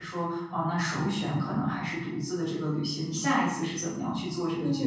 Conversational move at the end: taking over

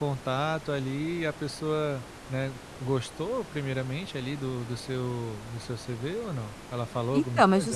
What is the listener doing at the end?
taking over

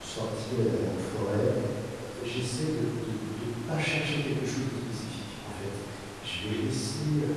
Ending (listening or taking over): listening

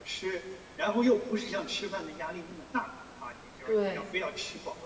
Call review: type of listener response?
listening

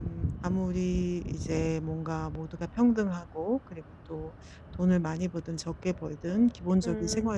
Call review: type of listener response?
listening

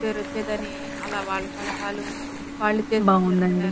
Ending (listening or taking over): taking over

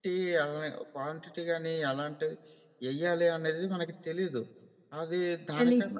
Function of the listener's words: listening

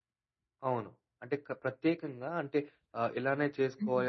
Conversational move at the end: listening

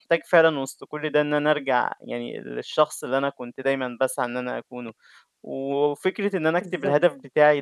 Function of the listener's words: listening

